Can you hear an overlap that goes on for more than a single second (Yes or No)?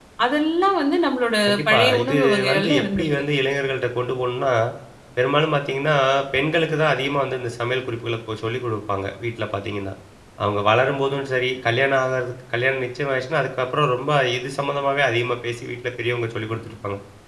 Yes